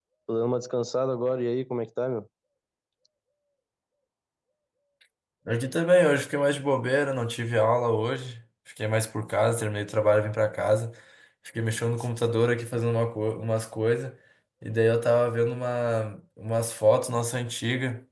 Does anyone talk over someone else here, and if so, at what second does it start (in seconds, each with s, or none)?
none